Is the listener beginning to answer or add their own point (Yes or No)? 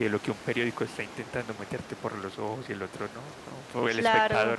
Yes